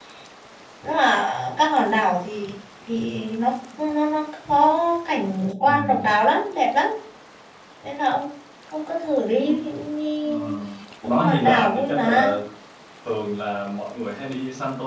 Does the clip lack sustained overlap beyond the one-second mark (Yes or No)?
No